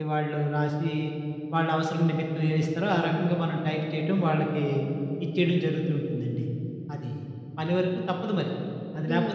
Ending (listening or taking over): taking over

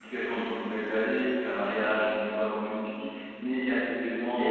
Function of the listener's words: listening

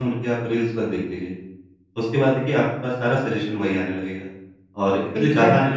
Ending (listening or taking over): listening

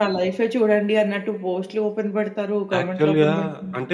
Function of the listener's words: taking over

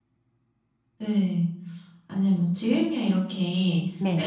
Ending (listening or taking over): listening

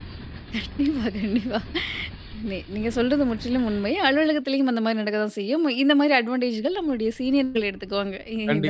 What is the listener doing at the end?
taking over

